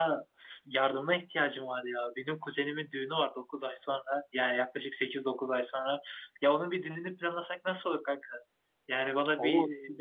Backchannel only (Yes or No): Yes